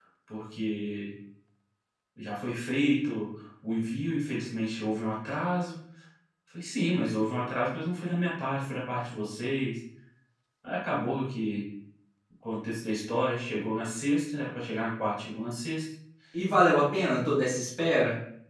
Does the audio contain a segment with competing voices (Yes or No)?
No